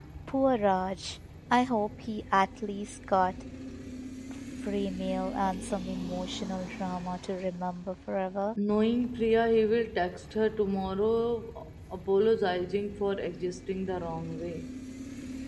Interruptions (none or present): none